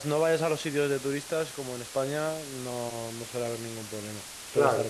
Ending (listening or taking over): taking over